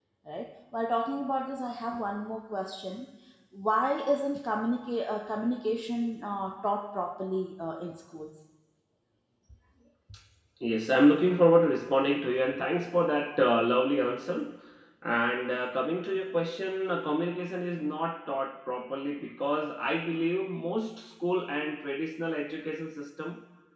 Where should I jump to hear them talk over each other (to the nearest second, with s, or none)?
none